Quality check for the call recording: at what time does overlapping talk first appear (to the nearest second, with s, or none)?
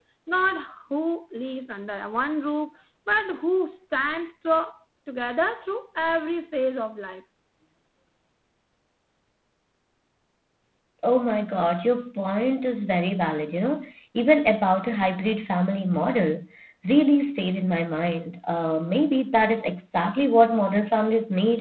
none